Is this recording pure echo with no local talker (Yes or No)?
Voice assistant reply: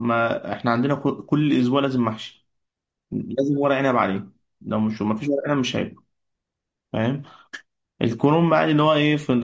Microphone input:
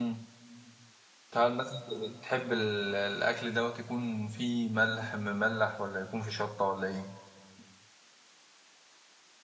No